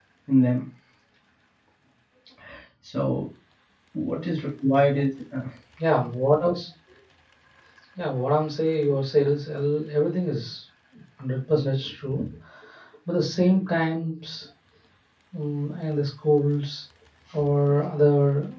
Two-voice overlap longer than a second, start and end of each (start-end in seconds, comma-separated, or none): none